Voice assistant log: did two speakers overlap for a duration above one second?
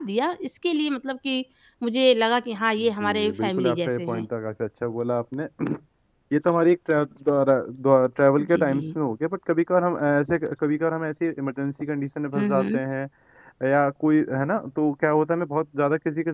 Yes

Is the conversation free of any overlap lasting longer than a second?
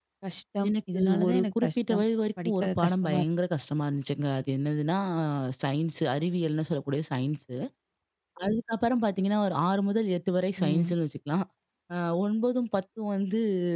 No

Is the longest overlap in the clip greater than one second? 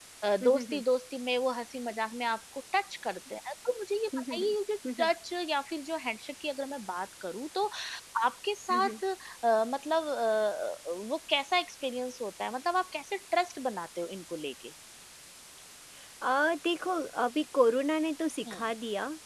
No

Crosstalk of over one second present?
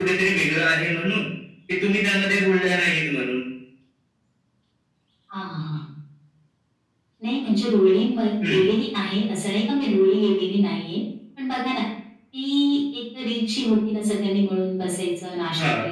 No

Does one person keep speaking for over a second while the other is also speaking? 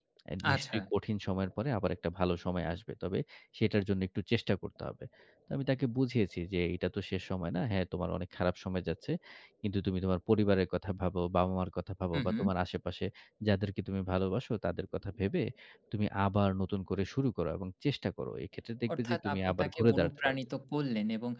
Yes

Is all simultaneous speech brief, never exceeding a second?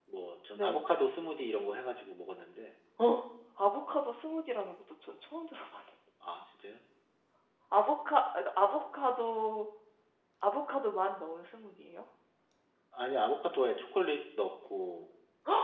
Yes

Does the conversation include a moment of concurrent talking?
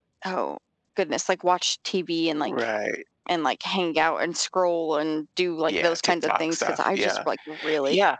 Yes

